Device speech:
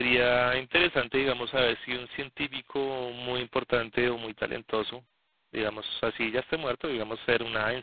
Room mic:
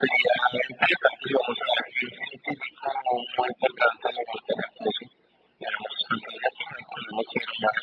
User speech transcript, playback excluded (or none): none